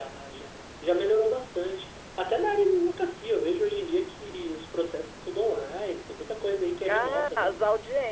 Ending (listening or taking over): taking over